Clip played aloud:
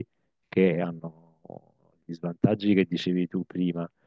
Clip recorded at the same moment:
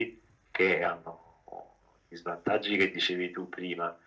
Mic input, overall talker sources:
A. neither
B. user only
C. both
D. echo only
D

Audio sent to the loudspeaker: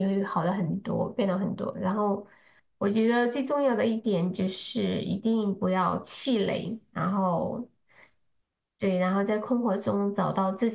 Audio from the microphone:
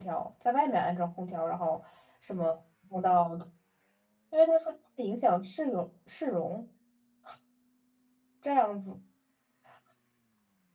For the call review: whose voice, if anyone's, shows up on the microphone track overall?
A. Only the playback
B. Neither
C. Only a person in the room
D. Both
C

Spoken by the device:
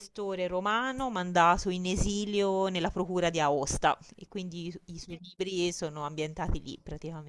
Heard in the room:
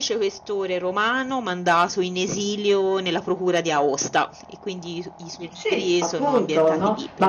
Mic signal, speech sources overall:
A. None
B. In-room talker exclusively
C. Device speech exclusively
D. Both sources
D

